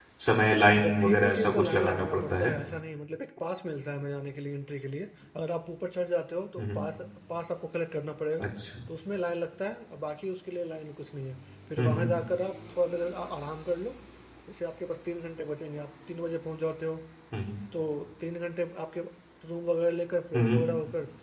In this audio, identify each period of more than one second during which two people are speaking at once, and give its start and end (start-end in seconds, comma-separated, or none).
0.8-2.5